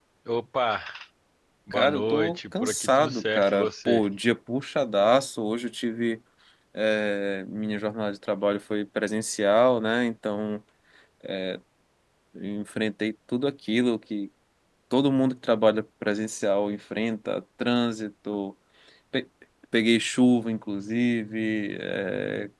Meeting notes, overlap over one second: present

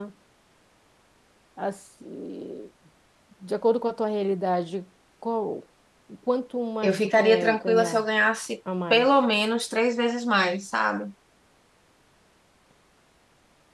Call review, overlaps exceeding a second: present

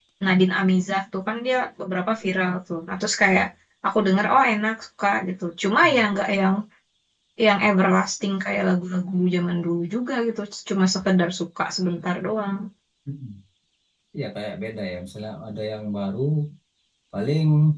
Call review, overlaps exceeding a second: none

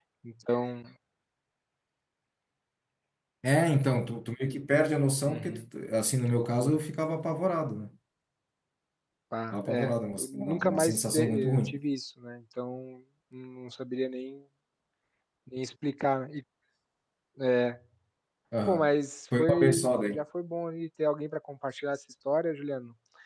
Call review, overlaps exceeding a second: present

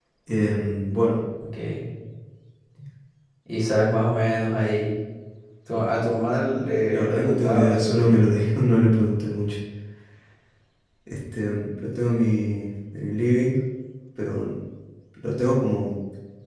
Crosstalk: present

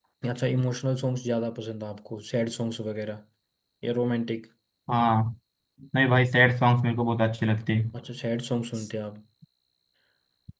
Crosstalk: none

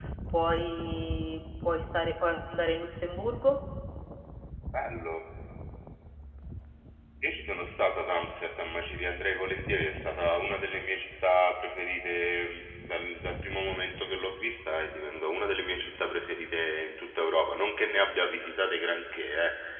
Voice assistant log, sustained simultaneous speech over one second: none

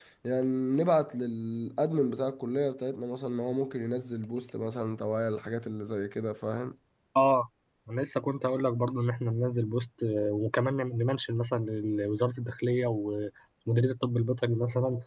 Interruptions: none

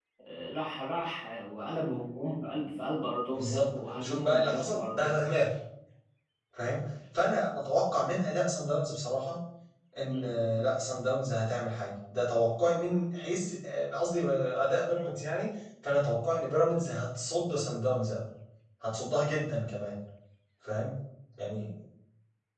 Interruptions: present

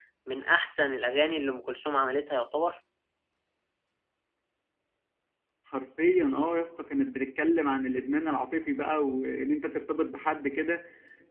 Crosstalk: none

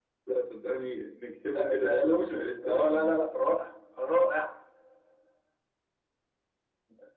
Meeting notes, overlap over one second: present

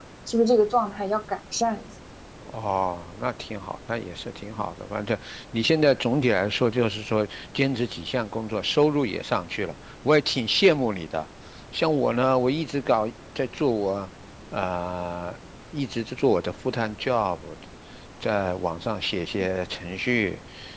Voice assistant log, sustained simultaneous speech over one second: none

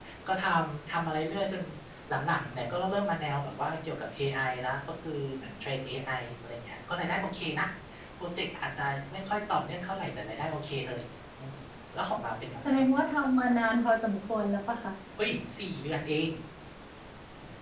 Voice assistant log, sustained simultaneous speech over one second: none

